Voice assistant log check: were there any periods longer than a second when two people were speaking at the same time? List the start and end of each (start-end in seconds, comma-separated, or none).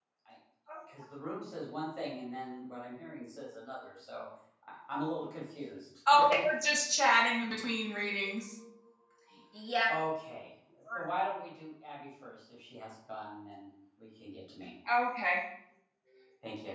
none